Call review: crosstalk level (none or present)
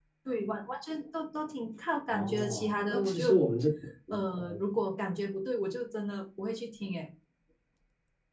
present